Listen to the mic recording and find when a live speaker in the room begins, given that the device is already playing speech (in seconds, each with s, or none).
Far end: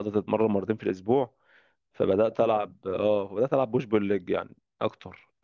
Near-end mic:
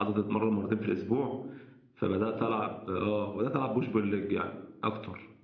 none